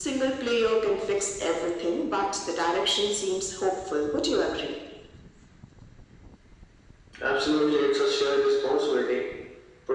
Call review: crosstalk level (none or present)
none